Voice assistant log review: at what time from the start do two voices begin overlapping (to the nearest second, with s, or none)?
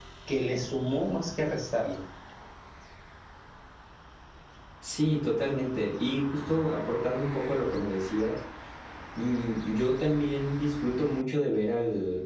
none